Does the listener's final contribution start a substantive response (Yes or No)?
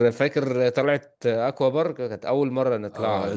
Yes